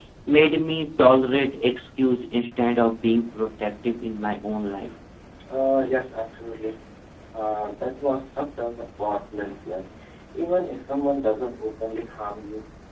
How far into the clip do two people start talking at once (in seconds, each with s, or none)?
none